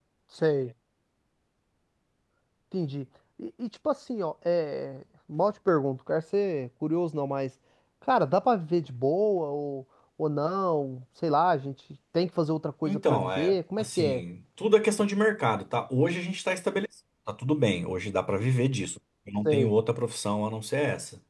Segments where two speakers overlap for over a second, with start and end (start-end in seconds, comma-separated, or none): 12.8-14.2